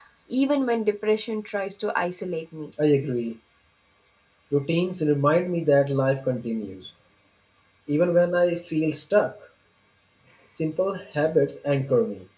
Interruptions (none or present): none